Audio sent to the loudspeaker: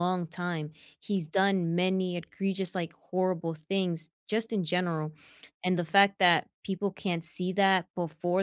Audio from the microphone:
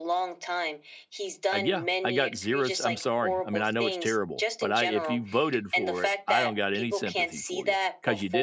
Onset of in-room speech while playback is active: 1 s

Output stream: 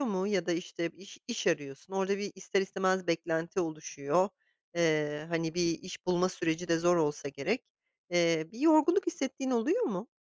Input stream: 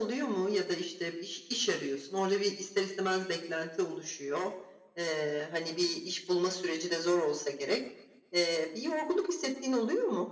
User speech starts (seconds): none

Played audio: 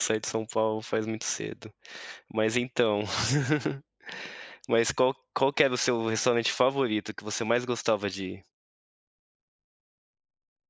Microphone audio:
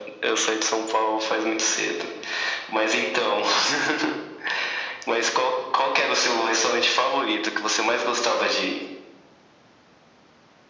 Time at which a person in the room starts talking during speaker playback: none

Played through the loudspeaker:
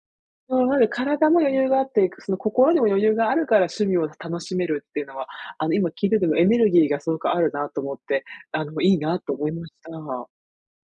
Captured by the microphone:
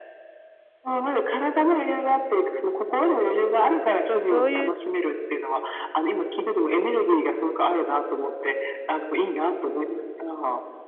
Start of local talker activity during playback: 4 s

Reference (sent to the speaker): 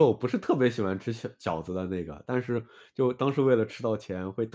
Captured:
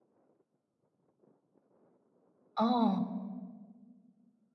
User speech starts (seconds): 3 s

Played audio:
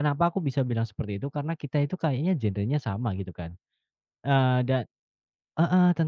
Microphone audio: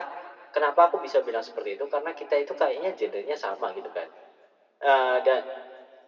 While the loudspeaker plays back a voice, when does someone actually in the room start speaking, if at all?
none

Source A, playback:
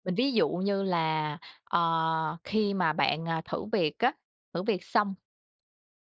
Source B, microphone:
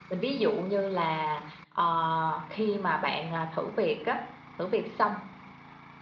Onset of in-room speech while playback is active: none

